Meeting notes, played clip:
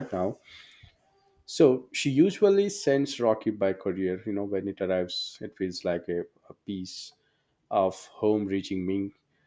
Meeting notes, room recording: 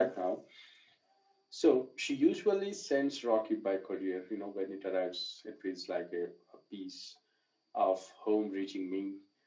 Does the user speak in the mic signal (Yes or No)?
No